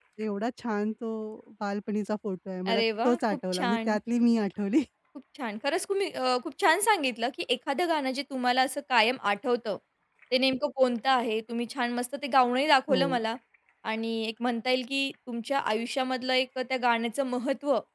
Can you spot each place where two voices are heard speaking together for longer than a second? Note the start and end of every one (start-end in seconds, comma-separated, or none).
2.7-4.0